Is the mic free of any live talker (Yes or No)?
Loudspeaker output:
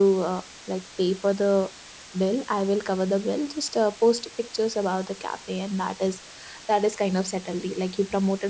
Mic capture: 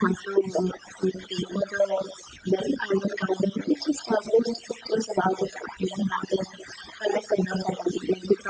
Yes